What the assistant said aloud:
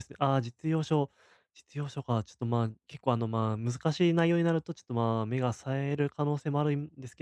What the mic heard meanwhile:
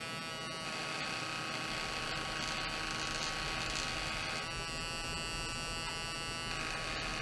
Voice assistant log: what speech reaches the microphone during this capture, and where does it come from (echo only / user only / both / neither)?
neither